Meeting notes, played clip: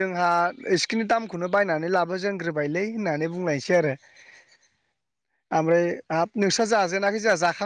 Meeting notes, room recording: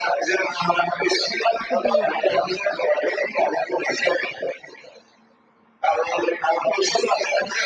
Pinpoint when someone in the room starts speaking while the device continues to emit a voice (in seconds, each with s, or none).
1.7 s